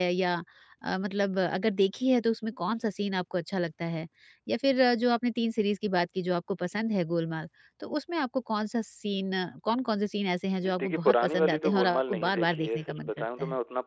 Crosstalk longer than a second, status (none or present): present